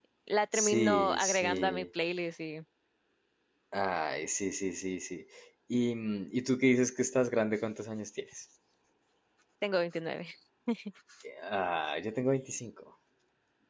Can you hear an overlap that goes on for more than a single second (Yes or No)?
Yes